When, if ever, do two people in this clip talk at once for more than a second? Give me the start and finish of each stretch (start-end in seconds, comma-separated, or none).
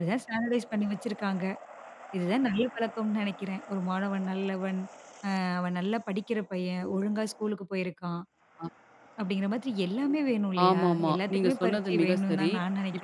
10.7-12.5